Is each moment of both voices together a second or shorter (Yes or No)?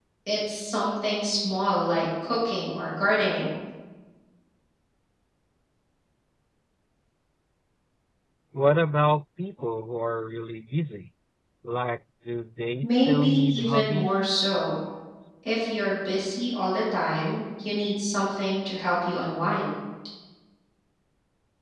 No